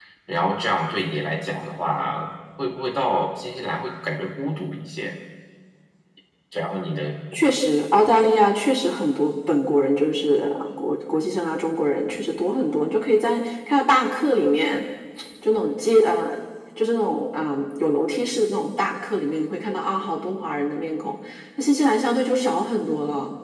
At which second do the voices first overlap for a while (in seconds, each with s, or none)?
none